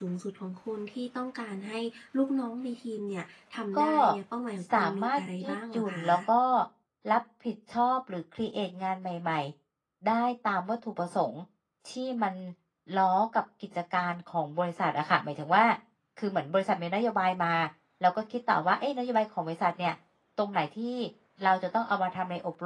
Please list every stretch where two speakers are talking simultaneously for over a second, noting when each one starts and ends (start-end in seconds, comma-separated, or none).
4.7-6.2